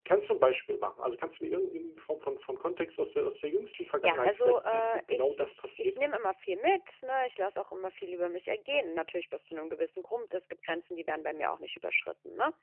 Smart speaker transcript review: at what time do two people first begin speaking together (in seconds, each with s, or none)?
4.0 s